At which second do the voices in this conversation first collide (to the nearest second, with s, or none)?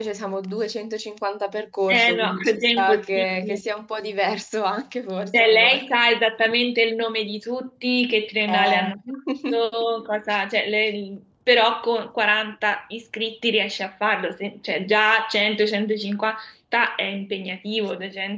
2 s